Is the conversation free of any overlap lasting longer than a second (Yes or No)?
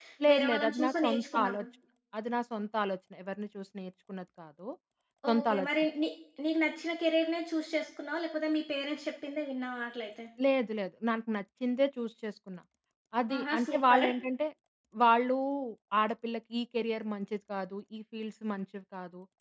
No